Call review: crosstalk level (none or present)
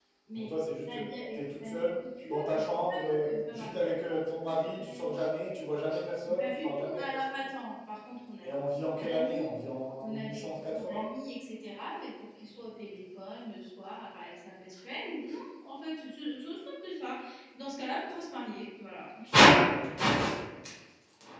present